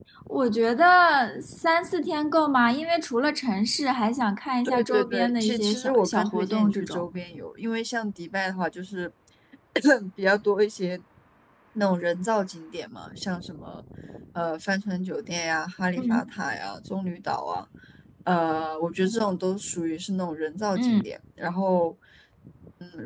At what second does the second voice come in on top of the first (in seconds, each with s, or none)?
4.7 s